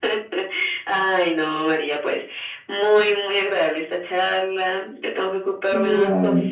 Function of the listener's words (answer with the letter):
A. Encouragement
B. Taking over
A